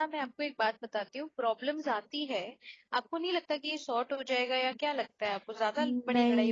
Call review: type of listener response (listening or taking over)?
taking over